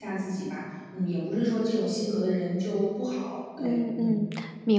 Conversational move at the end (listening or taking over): taking over